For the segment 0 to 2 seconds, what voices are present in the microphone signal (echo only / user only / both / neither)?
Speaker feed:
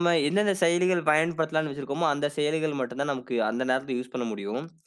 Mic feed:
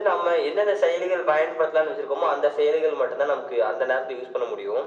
echo only